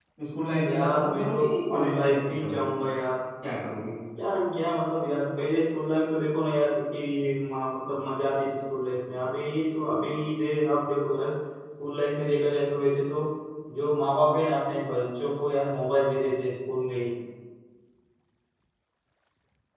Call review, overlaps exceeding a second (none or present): present